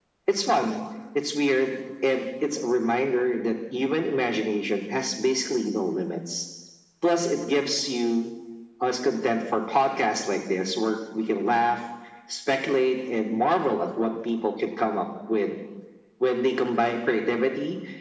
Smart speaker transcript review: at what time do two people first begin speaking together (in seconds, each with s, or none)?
none